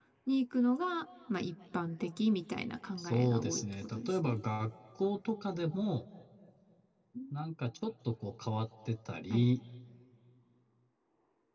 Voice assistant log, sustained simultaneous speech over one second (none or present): present